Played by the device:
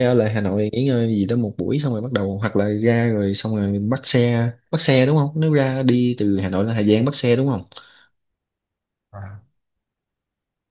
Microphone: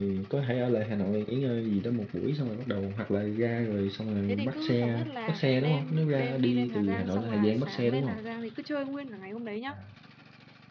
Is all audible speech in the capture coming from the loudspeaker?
No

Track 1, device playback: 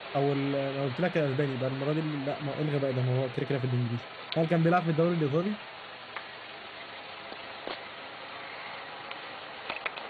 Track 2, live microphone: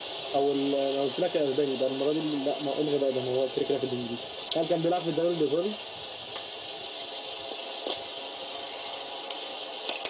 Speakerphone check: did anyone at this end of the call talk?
No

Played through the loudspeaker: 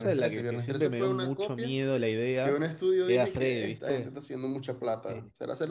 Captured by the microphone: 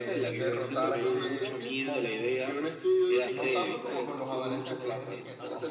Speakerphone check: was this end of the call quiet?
No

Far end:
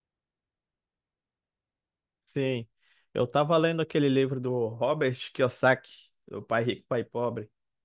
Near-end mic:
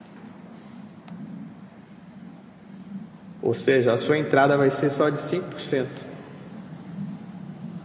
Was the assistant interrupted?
Yes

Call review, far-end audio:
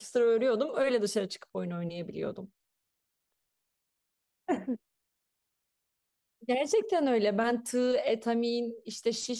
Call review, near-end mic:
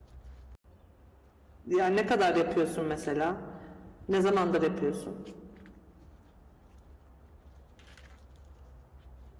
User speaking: Yes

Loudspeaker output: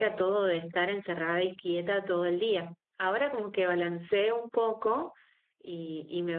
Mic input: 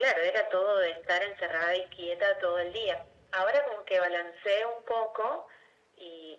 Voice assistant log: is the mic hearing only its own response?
Yes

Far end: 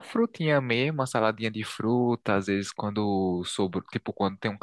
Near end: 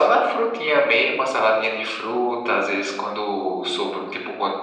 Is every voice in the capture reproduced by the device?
Yes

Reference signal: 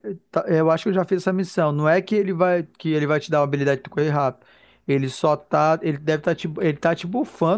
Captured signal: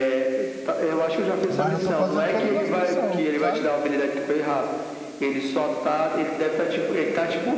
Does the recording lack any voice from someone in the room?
No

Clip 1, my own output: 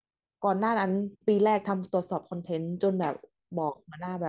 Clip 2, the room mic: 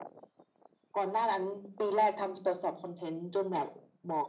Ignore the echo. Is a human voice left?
No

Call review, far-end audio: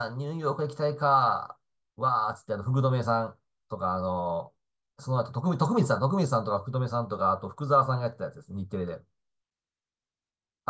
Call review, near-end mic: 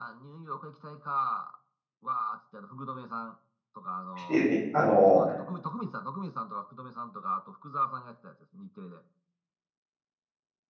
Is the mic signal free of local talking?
No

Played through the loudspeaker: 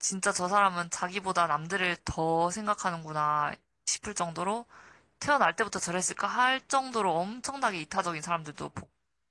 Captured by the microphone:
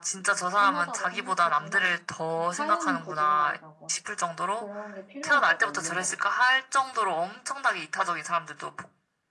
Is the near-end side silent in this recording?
No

